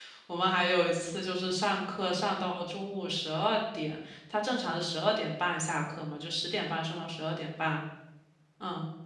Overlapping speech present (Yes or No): No